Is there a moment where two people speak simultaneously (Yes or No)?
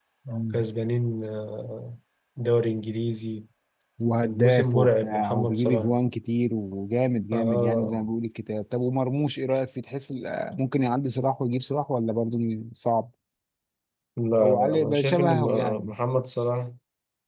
Yes